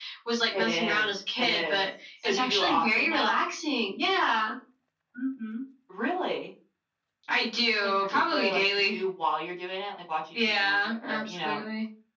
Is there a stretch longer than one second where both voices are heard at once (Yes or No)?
Yes